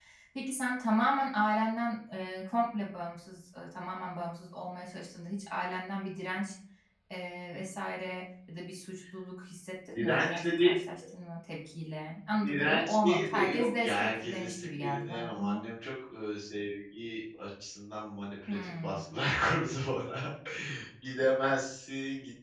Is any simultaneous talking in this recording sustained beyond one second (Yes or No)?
Yes